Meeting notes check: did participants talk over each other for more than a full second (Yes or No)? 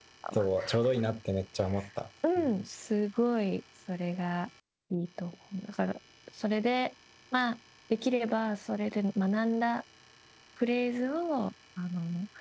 No